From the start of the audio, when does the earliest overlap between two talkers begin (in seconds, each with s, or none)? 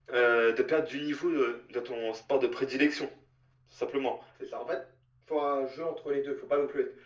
none